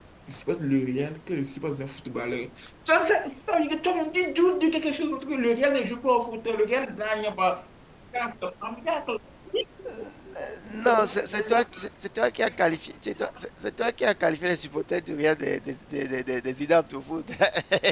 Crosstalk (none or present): none